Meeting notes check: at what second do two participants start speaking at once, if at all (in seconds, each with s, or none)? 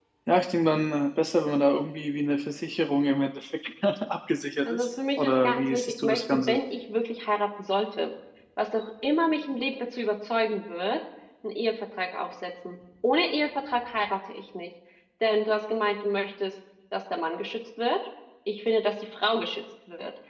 4.6 s